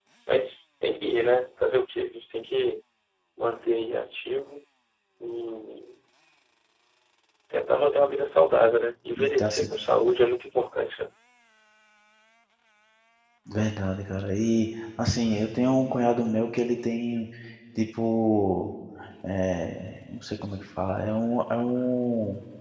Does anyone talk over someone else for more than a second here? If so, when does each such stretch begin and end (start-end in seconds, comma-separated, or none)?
none